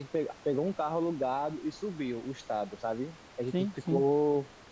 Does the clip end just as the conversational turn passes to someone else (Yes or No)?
No